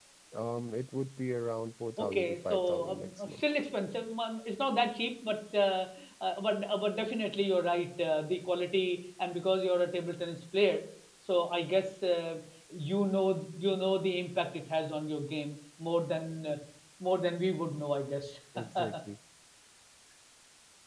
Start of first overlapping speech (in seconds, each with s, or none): 2.0 s